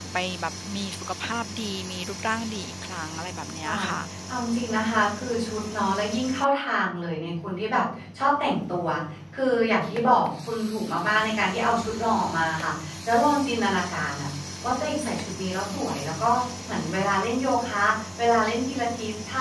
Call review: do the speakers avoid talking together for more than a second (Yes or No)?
Yes